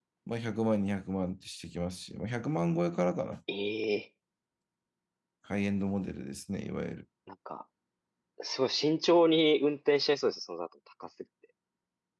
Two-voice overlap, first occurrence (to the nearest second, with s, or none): none